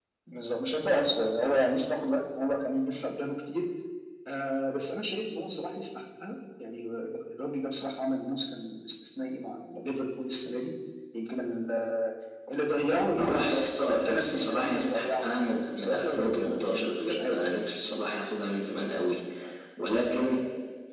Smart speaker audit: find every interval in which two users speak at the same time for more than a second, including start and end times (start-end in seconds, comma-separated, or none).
13.2-15.3, 15.8-17.4